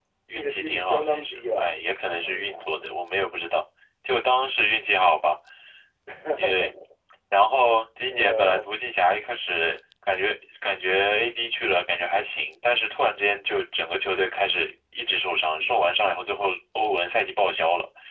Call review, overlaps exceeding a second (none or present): present